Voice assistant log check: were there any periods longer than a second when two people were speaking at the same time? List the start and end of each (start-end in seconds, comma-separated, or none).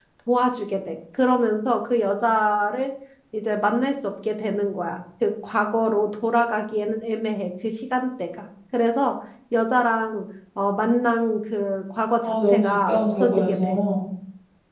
12.5-13.8